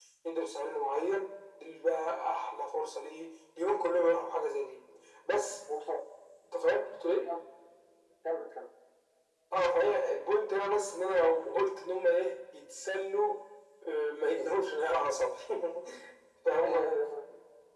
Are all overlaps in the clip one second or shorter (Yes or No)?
Yes